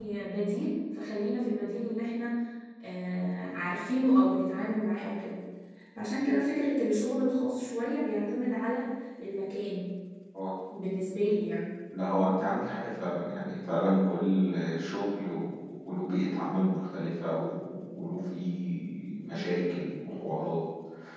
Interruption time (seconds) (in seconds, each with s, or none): none